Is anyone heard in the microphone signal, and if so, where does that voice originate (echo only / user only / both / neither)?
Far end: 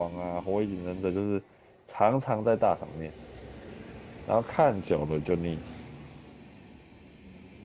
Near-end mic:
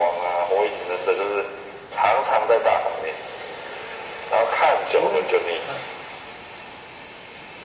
both